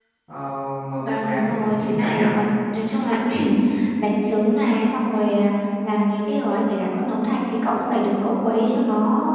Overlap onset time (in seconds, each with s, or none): 1.0 s